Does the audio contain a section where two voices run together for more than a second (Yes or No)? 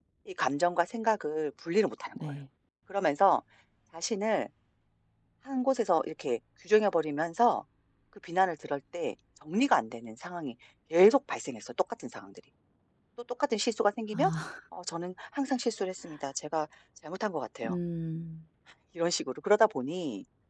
No